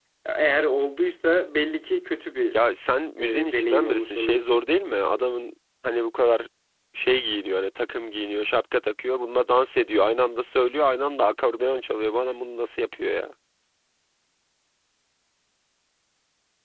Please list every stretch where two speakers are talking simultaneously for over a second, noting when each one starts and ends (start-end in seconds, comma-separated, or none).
3.4-4.7